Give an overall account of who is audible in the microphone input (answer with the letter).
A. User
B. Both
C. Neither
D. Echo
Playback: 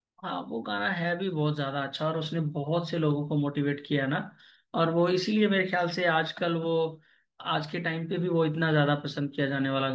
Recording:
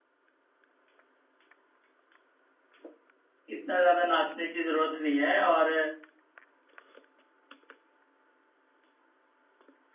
A